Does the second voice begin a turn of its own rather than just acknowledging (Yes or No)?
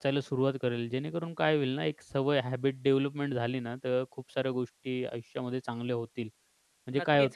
Yes